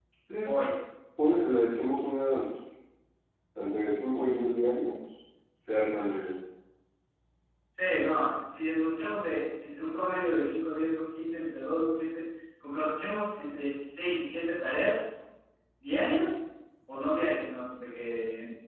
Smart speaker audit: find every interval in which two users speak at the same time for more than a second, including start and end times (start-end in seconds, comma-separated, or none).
none